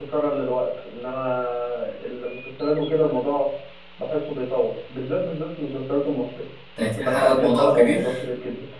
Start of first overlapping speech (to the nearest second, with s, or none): 7 s